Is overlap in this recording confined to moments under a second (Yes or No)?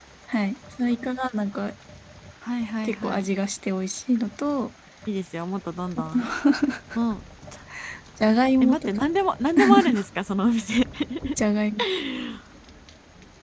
Yes